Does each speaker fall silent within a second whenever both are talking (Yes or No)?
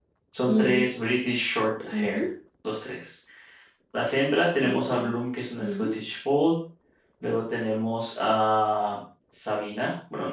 Yes